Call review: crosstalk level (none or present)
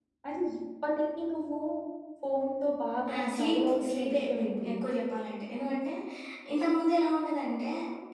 present